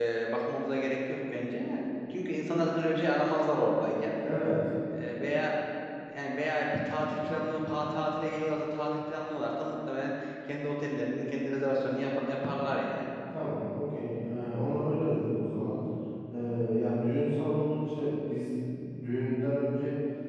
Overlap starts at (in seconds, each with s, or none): none